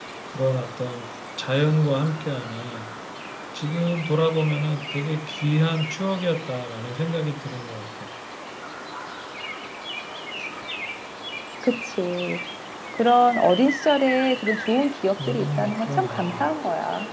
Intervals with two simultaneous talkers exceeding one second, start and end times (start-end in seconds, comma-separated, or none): 15.3-16.5